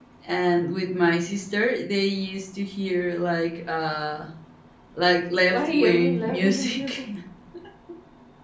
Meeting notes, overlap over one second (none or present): present